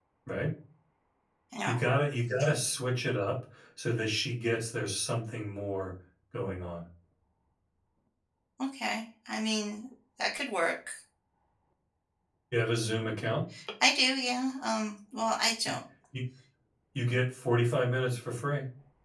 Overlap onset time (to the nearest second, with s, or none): none